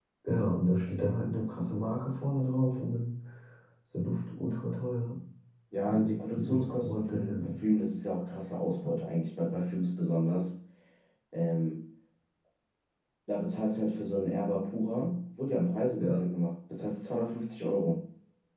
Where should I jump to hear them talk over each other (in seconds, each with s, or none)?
5.9 s